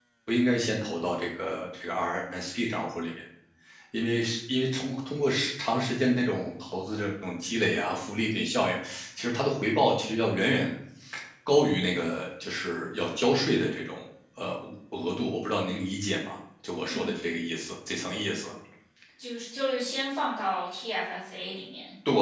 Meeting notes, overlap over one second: none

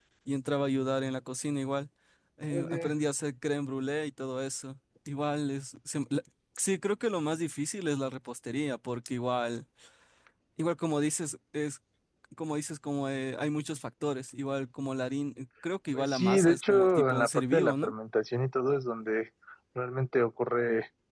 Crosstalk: present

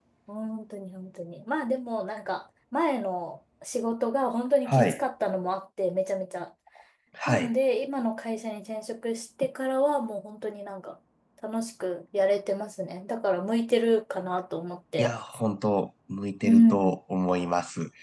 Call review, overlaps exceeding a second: none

